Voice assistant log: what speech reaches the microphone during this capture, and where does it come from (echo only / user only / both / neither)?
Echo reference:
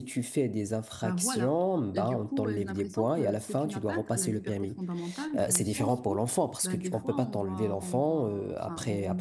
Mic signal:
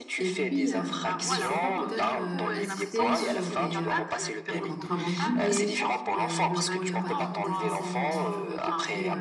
both